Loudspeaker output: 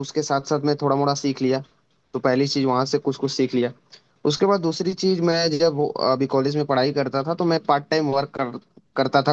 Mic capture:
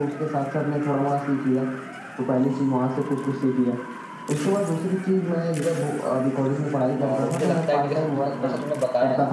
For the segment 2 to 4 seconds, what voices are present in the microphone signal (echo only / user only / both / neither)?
echo only